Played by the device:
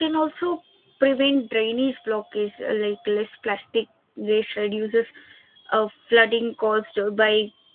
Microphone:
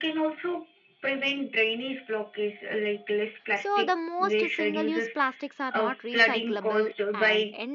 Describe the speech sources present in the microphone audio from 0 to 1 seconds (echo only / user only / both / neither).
echo only